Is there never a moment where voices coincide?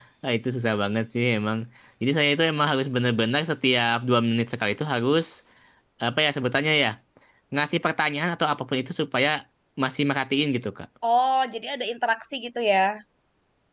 Yes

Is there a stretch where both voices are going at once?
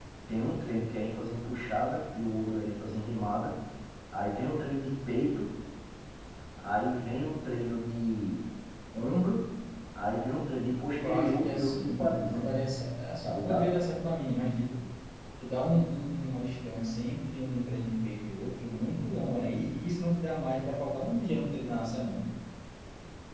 Yes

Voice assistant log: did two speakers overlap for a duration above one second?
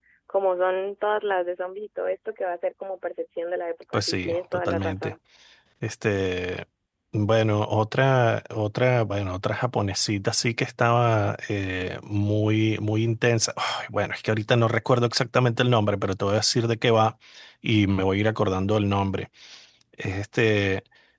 Yes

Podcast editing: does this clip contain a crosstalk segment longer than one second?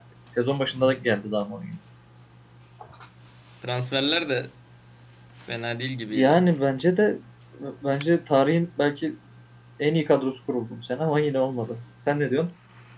No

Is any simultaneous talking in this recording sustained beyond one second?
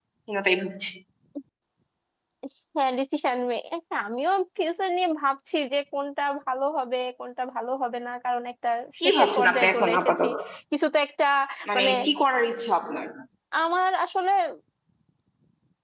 Yes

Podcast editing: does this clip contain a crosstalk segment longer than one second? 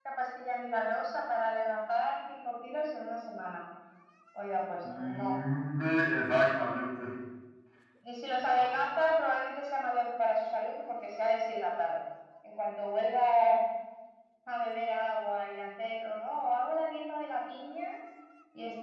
No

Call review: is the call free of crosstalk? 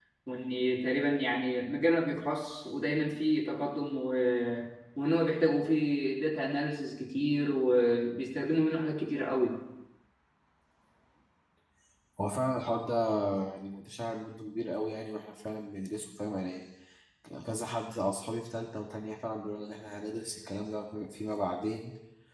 Yes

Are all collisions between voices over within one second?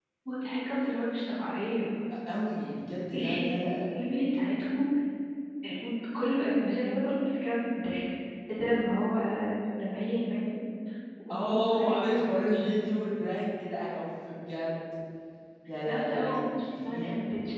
No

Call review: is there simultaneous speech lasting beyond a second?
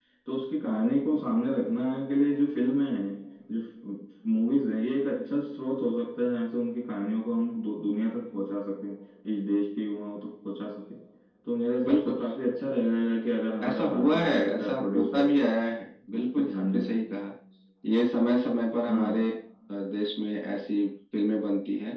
Yes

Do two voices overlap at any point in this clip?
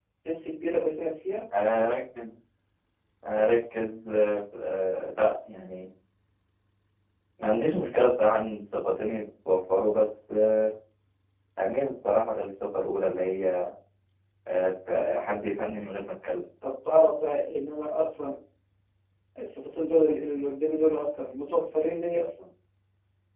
No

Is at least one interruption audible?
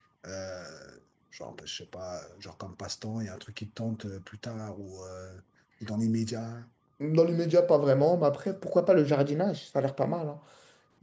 No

